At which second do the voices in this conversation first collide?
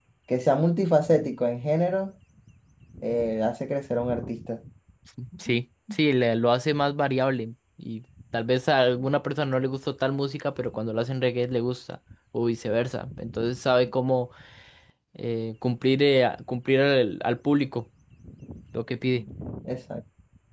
none

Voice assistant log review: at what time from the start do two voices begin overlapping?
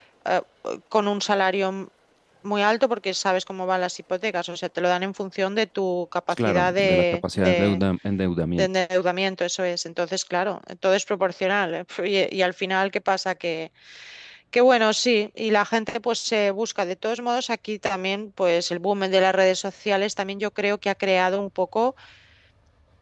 6.3 s

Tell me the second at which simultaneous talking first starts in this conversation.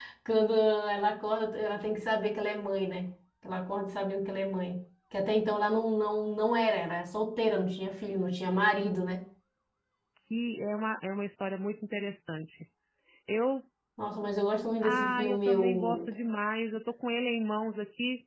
14.8 s

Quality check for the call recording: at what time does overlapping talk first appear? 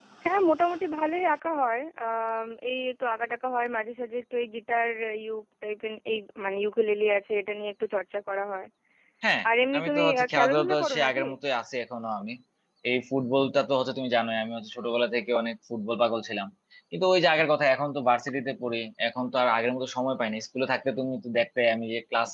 9.7 s

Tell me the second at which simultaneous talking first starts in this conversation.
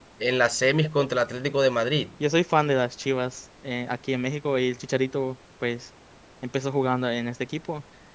none

